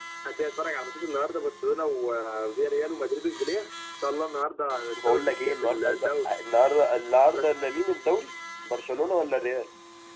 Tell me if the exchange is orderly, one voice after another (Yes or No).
No